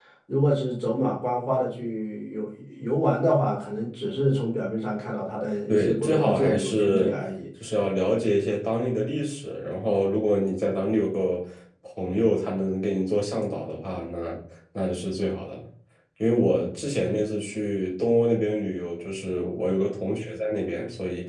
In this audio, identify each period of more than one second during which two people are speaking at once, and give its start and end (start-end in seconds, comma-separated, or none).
5.7-7.1